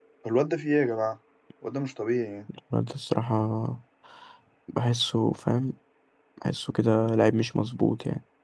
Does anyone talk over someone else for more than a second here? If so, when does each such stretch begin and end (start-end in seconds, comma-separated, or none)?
none